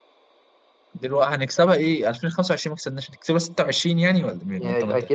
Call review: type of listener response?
taking over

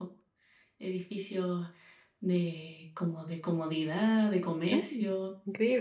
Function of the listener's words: taking over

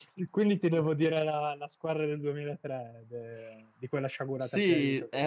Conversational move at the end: taking over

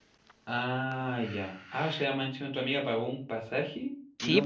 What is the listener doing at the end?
taking over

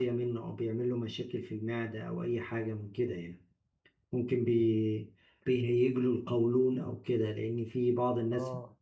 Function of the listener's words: listening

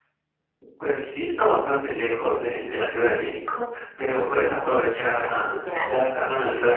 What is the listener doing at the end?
listening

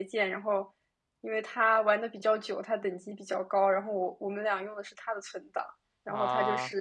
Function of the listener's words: listening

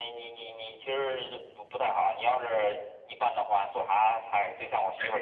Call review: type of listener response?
listening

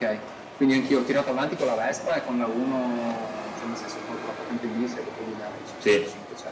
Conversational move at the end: listening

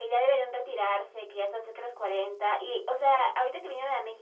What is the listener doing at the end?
listening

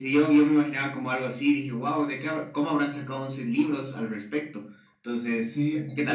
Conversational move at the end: taking over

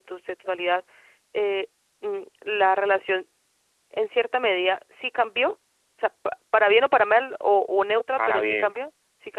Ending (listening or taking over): listening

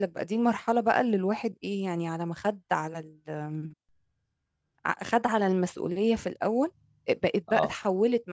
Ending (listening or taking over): listening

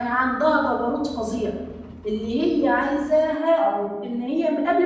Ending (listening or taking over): listening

